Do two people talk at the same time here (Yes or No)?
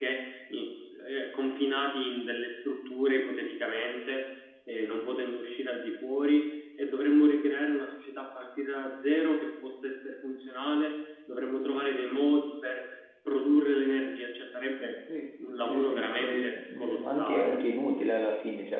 Yes